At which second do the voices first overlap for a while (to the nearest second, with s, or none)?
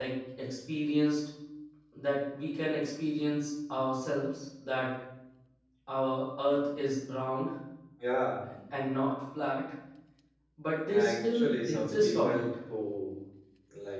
11 s